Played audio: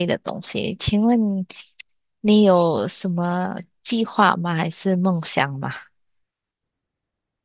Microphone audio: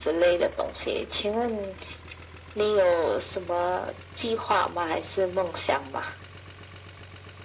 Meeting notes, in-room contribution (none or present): none